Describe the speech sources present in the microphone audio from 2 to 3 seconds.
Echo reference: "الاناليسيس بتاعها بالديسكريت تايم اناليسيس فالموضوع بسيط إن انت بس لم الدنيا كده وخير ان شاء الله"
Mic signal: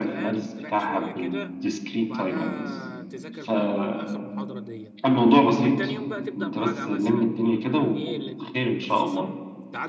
both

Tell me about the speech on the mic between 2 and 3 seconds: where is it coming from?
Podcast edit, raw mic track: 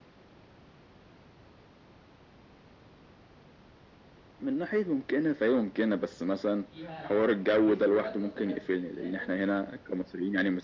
neither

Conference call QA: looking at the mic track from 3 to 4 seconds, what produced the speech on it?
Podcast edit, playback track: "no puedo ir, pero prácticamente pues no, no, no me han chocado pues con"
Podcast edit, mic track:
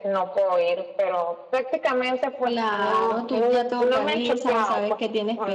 both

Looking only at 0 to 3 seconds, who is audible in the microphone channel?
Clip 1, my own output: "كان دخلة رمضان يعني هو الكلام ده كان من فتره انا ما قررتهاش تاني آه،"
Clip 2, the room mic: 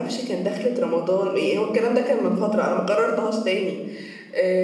echo only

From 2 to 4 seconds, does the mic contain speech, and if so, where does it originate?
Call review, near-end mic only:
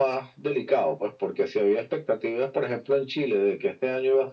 echo only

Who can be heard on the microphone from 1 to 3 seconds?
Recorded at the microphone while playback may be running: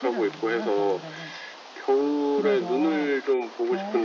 both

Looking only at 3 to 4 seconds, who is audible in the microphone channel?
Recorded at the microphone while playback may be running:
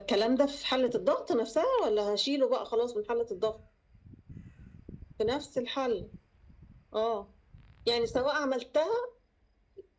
echo only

